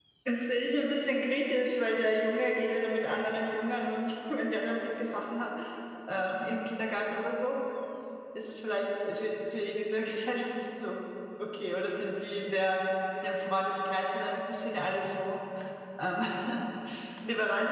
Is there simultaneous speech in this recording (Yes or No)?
No